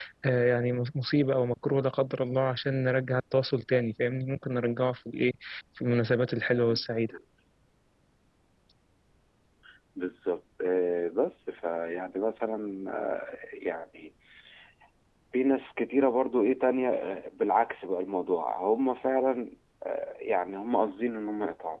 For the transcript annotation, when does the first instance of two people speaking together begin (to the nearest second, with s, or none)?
none